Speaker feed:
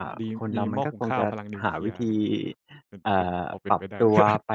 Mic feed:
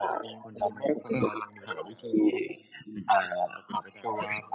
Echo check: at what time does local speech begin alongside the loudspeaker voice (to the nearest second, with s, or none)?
none